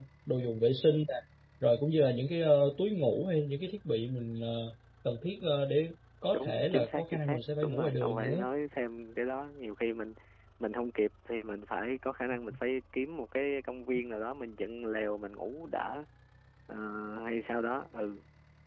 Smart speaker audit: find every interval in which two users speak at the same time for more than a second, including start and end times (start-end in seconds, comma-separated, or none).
6.3-8.4